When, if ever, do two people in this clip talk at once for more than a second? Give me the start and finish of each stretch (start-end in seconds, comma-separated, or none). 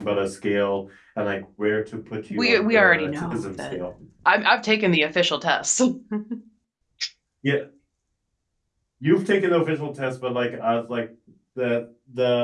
2.3-3.8